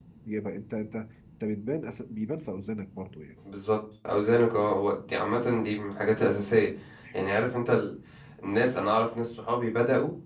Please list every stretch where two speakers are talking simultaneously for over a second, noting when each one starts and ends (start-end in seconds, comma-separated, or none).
none